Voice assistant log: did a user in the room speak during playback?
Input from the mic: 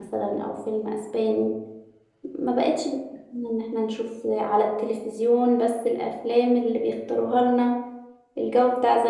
Yes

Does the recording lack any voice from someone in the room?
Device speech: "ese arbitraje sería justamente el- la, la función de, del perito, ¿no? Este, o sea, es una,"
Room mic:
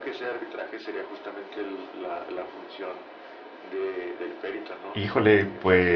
No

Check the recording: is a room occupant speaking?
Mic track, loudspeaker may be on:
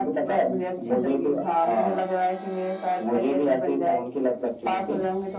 No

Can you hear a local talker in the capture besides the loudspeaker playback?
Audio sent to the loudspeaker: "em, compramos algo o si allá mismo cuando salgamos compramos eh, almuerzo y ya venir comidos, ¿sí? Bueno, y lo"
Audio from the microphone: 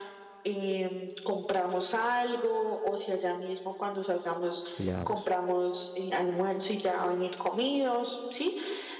Yes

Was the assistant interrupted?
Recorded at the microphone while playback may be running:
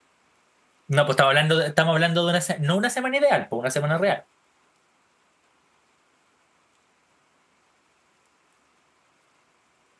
Yes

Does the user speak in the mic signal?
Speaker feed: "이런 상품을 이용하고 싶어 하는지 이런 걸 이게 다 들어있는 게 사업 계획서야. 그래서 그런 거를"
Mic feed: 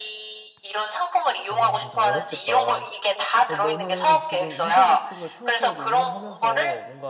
Yes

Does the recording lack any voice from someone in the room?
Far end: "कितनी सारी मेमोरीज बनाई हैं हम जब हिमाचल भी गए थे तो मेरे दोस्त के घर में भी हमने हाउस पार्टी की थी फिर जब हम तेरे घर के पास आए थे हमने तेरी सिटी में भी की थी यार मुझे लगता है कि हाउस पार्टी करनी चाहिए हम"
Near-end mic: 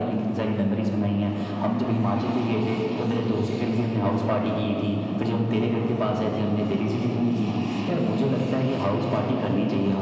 Yes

